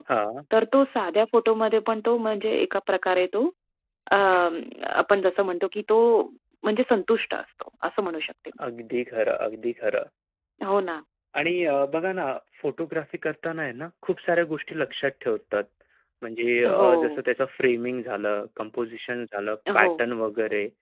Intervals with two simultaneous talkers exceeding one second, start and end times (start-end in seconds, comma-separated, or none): none